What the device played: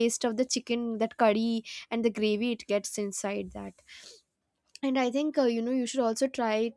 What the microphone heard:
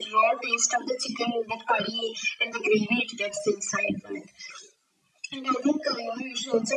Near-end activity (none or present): none